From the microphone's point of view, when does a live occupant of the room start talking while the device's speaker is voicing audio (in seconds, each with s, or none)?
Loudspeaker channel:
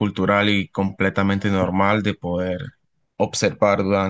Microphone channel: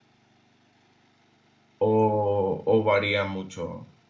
1.8 s